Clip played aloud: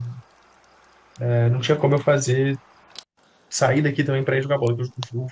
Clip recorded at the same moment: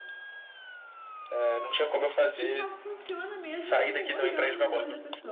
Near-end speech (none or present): present